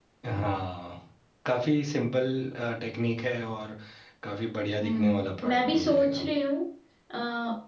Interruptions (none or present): present